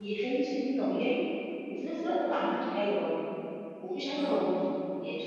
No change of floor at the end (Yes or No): Yes